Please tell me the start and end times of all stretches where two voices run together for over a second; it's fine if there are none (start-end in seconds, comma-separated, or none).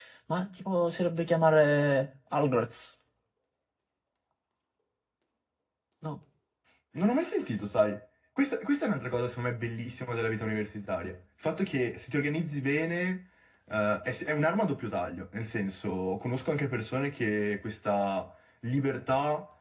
none